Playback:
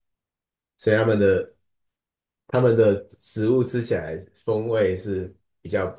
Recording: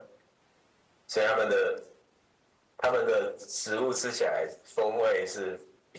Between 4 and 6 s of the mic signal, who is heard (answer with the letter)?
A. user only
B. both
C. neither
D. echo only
D